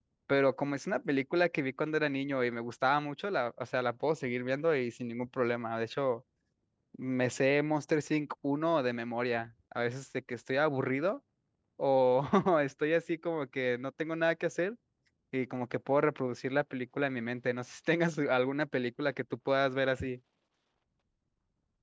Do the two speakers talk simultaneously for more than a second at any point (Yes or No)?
No